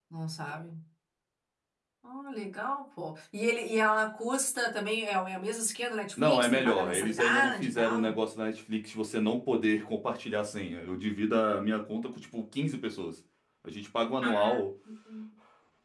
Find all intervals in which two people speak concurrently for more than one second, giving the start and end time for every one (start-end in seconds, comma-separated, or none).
6.2-8.1